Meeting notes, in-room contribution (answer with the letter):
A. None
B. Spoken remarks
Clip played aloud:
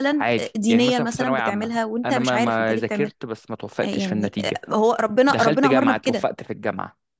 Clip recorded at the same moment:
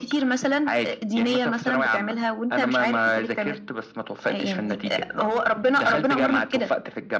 A